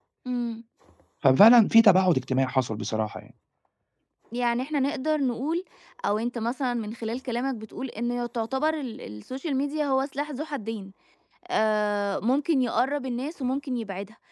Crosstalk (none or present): none